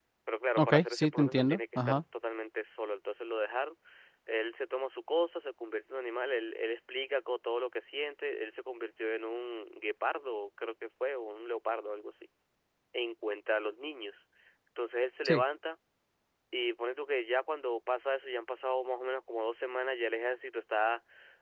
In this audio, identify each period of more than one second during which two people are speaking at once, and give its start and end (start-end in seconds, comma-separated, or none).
0.6-2.0